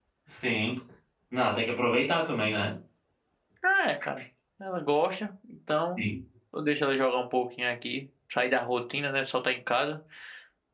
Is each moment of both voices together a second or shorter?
Yes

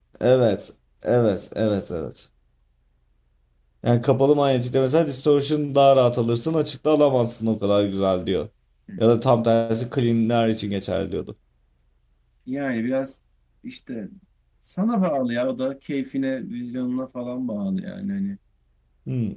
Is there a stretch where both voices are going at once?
No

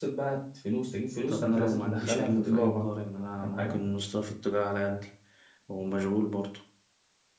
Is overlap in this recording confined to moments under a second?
No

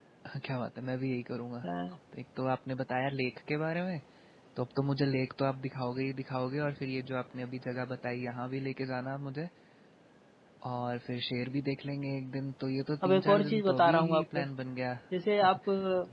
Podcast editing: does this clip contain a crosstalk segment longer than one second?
Yes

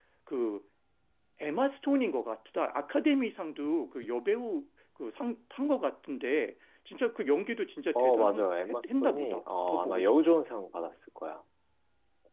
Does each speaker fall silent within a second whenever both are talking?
No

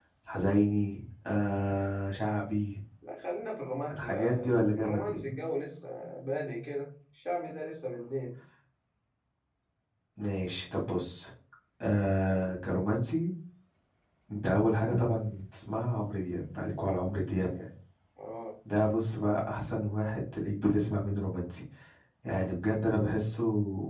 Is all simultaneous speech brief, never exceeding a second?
No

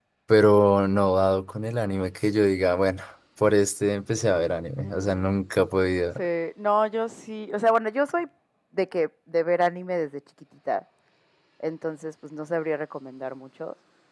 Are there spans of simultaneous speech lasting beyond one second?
No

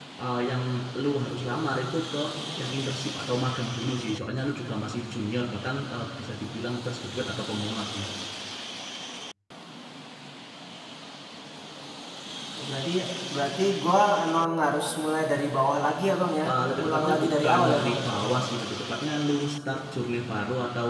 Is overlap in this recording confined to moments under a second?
No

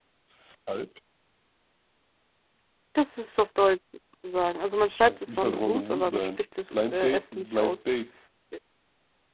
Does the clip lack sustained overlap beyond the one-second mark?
No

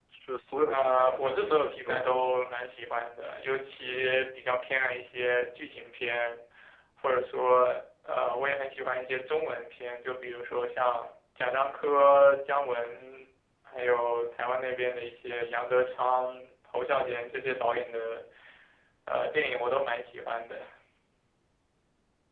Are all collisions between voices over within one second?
No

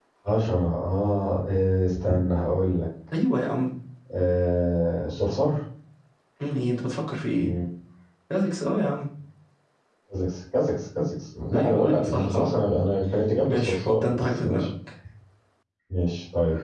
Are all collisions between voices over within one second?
No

